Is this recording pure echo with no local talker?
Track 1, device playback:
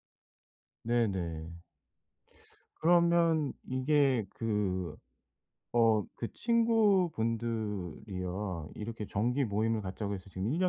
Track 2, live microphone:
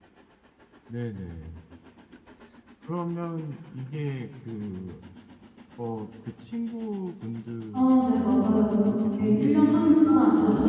No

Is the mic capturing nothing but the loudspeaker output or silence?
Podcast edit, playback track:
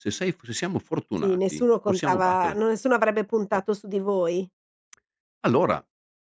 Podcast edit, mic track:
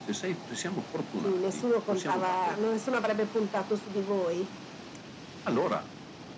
Yes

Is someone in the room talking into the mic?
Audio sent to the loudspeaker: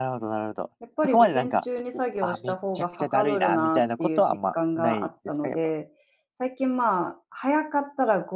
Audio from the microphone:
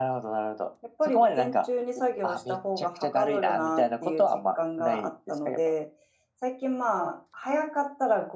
No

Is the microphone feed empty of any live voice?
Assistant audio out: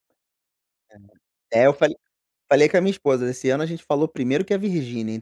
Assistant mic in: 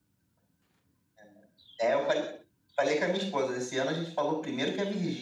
Yes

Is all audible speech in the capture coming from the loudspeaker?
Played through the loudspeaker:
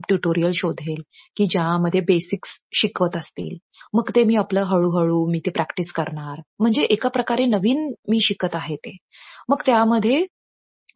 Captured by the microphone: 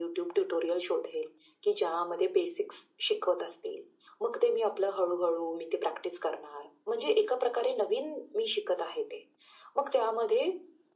Yes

